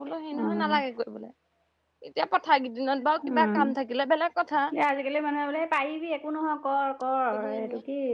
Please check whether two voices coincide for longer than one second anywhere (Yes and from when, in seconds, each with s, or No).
No